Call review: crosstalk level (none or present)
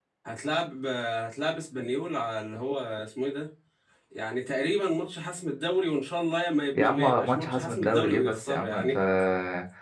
present